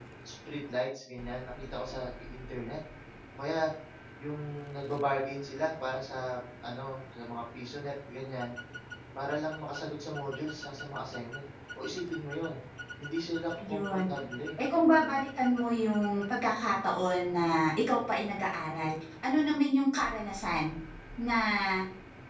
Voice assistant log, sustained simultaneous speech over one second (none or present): none